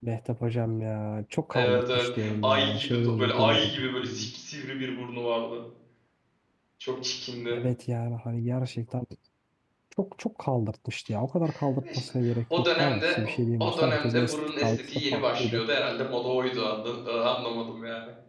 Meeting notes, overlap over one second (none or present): present